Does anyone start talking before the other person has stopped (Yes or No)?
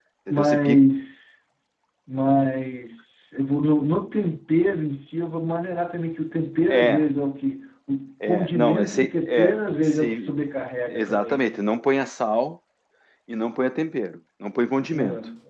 Yes